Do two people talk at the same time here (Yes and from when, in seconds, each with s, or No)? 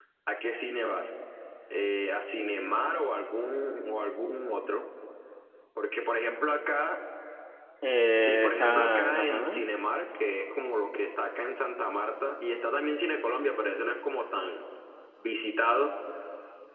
Yes, from 8.2 s